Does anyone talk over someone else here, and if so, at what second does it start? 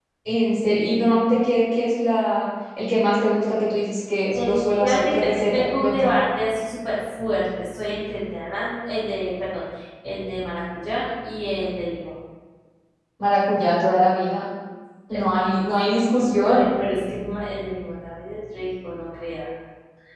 4 s

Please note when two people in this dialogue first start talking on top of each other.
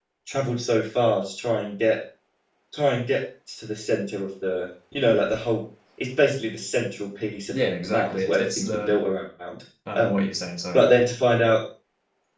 8 s

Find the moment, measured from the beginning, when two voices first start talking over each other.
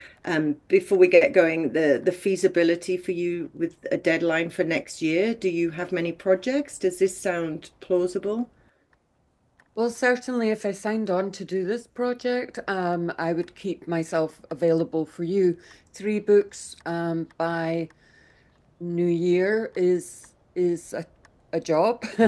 none

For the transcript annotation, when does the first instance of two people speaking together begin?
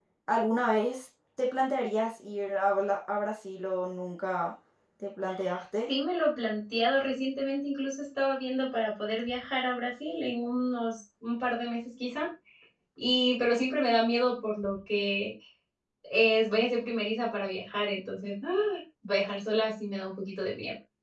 none

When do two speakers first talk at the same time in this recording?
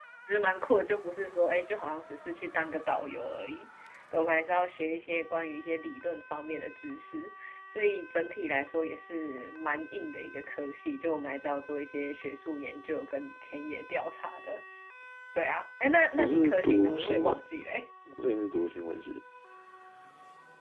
16 s

